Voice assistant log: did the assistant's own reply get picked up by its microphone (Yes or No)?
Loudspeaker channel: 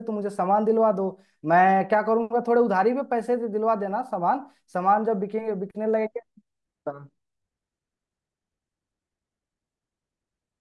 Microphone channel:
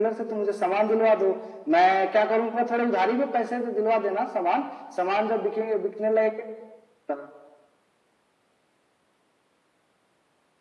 Yes